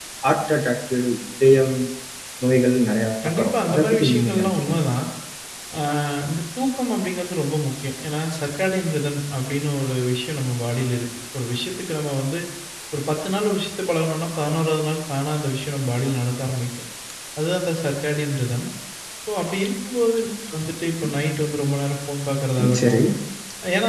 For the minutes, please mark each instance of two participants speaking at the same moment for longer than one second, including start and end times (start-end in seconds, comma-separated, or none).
3.2-4.8